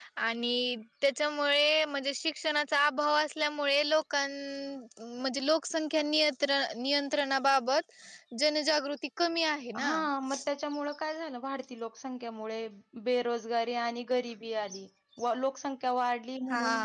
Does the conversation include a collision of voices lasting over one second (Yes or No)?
No